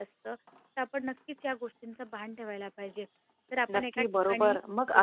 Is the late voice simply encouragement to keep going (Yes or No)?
No